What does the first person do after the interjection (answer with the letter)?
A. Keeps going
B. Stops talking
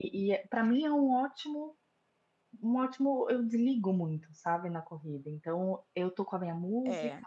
A